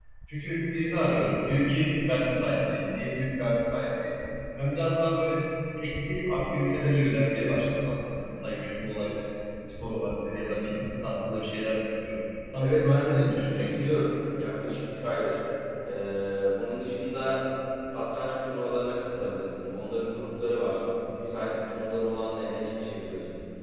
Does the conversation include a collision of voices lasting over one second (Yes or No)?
Yes